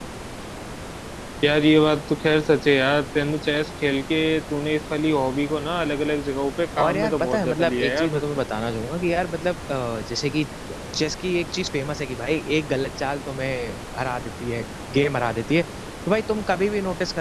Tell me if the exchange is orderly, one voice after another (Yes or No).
No